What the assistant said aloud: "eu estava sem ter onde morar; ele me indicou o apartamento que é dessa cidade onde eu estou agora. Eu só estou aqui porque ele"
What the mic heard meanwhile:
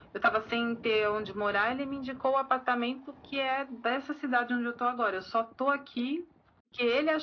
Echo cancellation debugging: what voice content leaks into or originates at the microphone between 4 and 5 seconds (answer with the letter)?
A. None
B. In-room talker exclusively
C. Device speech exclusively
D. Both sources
C